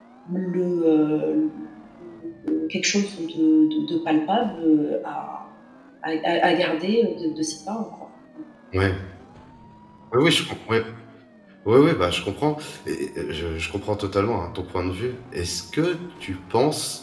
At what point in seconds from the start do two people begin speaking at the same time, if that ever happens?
none

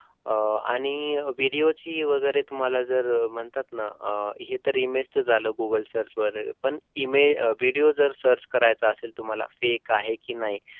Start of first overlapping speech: none

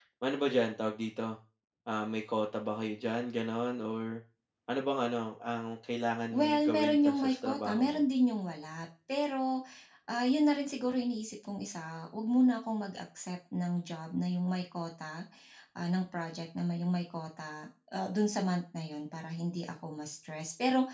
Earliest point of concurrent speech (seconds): 6 s

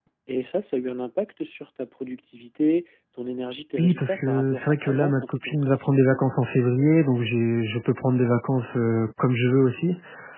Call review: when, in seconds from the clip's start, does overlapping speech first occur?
4 s

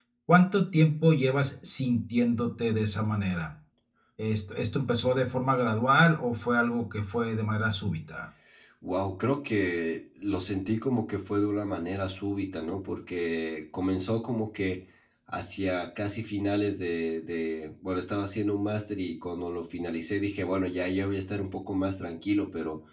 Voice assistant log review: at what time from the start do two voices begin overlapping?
none

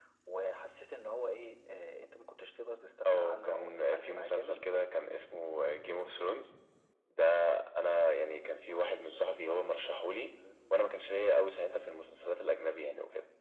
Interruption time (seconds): 3 s

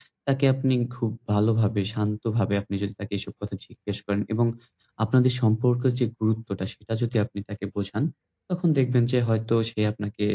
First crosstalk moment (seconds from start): none

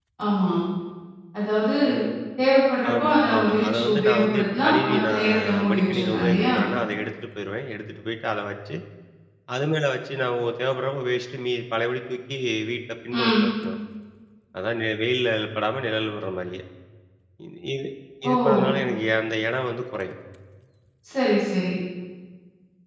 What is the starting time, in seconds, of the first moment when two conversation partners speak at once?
3 s

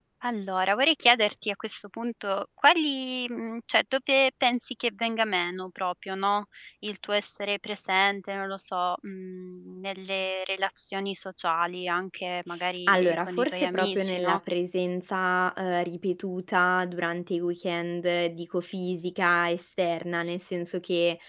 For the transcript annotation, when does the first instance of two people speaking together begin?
13 s

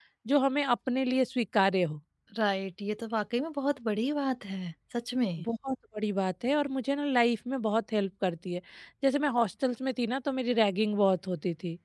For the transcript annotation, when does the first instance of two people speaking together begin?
none

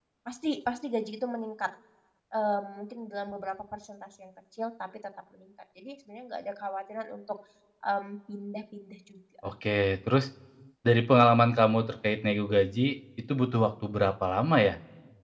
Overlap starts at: none

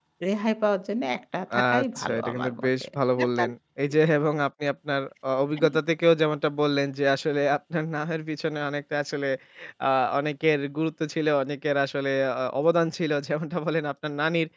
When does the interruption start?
2 s

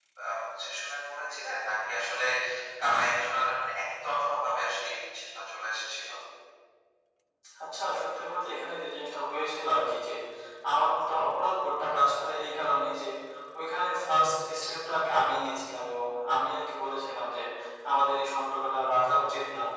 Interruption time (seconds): none

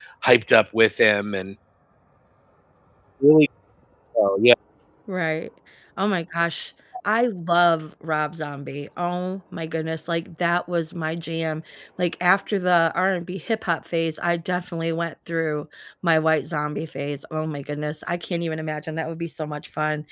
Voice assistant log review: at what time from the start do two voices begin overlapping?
none

